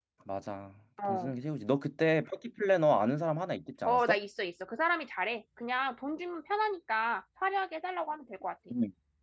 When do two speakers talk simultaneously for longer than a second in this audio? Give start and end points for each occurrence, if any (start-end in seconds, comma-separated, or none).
none